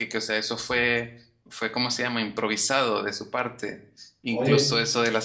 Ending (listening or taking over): listening